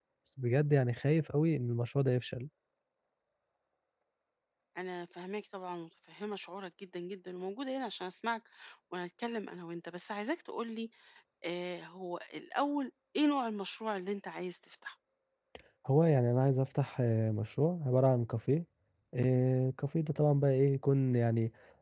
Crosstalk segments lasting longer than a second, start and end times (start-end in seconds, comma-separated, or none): none